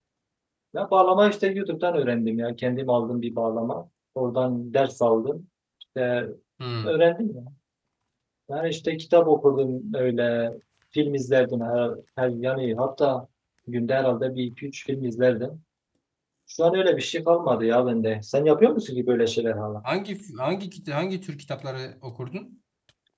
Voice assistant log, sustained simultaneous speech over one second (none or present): none